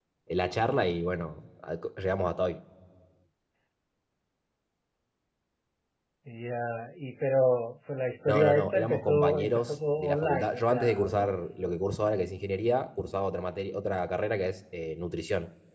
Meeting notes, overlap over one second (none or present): present